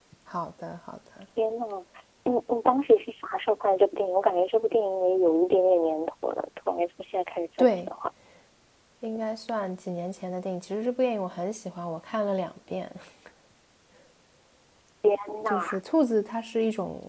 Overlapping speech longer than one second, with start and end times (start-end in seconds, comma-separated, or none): none